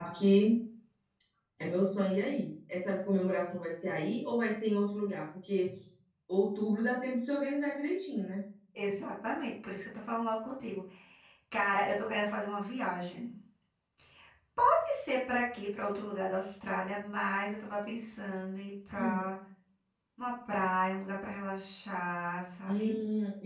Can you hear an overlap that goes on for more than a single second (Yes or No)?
No